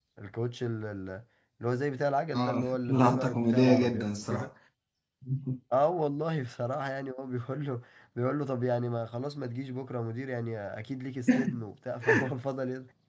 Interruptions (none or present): present